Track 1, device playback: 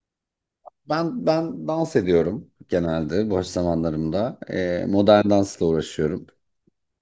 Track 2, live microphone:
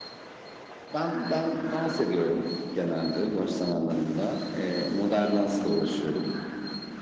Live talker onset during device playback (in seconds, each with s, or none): none